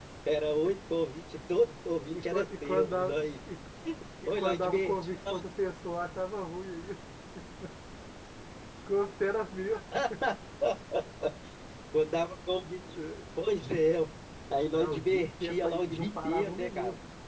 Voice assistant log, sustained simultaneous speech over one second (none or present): present